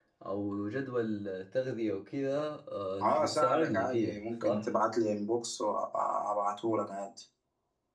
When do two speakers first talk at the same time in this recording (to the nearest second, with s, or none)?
3 s